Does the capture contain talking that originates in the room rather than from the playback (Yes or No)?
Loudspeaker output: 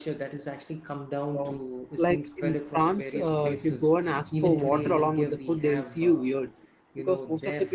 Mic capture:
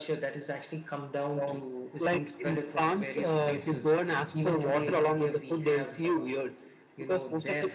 No